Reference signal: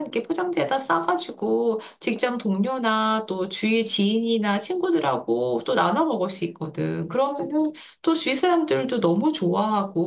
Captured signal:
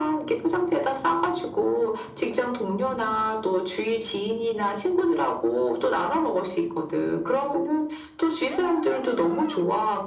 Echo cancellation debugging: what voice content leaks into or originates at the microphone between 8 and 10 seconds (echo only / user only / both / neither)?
echo only